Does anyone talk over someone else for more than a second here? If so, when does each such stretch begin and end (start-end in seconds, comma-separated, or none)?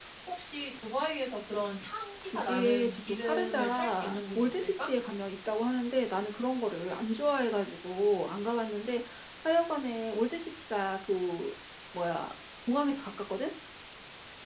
2.2-4.9